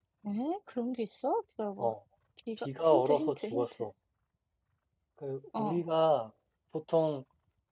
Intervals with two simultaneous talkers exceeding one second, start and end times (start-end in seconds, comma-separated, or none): 2.6-3.9